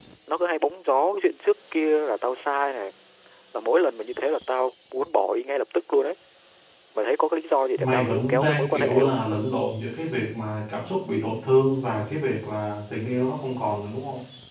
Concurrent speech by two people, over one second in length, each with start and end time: 7.8-9.2

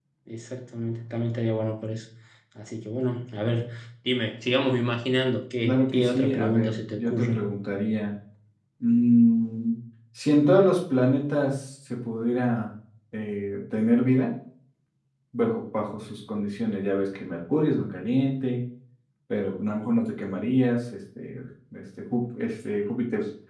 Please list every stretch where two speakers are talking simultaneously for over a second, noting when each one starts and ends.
5.6-7.4

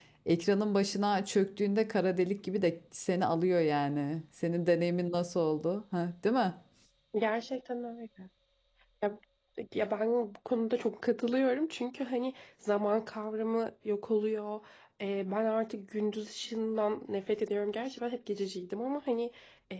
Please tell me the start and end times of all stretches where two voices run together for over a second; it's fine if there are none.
none

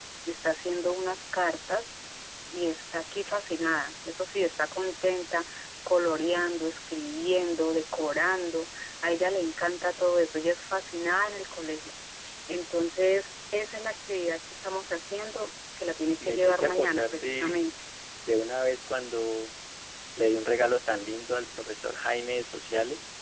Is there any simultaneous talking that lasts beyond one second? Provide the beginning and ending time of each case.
16.2-17.6

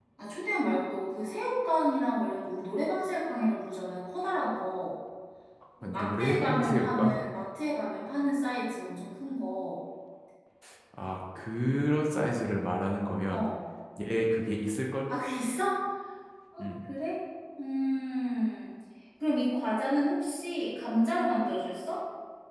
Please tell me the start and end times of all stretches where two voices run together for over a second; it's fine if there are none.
6.0-7.2

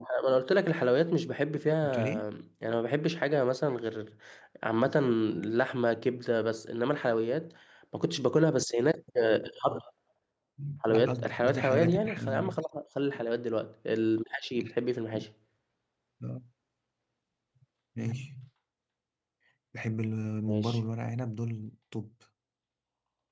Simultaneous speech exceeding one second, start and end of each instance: 10.9-12.6

